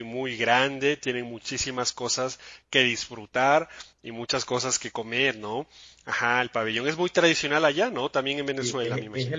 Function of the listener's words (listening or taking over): taking over